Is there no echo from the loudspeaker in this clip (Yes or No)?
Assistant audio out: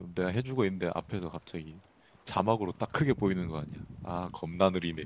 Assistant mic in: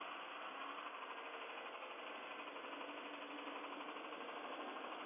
Yes